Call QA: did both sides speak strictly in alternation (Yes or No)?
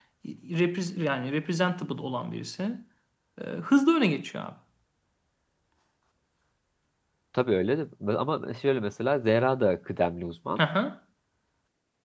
Yes